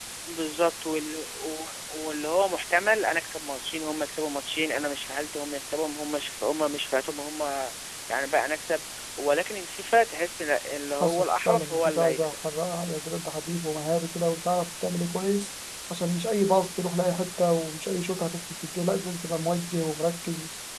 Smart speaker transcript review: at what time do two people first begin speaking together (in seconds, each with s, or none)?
11.0 s